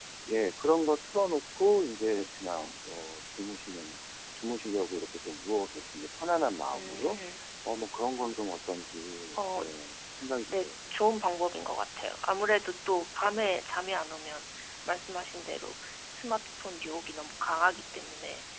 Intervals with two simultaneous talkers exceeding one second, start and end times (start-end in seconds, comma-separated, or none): none